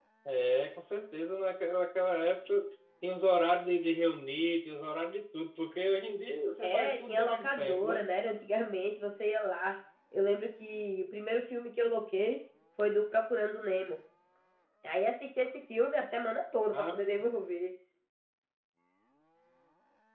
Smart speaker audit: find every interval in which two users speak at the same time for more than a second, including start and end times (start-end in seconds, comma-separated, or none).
6.6-8.1